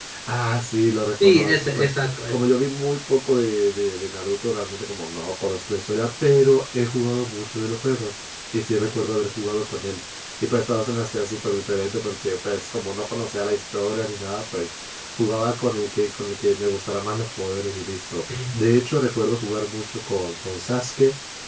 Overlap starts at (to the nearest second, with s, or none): 1 s